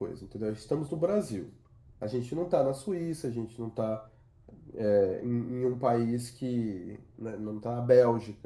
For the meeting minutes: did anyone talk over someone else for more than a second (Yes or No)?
No